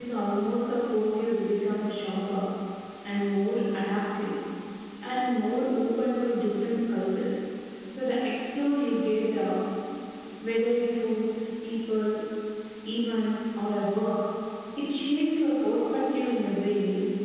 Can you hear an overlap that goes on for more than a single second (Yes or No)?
No